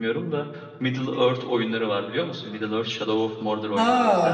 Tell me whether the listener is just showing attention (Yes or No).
No